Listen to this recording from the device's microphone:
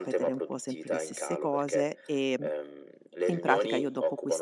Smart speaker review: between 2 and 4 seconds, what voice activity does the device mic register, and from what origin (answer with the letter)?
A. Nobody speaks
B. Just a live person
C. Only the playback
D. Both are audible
D